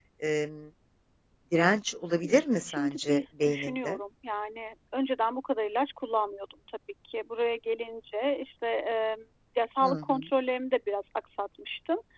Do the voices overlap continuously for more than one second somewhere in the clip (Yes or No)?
Yes